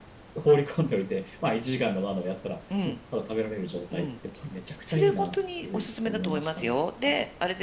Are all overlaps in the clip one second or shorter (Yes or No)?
No